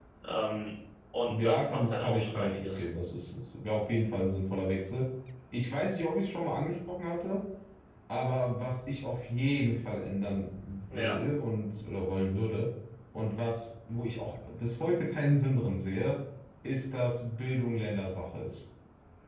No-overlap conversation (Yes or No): No